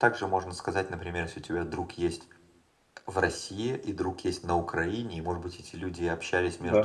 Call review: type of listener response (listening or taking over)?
listening